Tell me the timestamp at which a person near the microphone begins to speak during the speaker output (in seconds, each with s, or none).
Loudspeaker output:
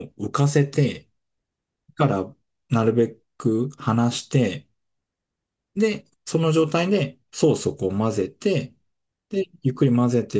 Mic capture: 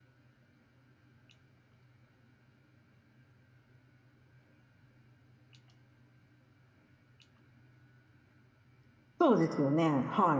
9.2 s